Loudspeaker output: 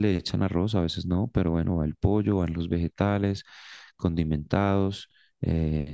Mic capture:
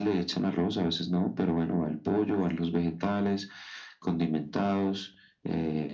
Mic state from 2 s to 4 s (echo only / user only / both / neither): echo only